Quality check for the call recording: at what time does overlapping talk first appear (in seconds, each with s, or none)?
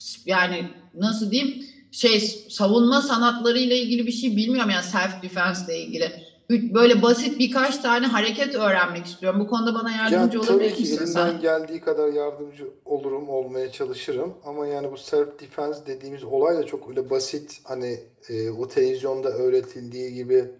10.0 s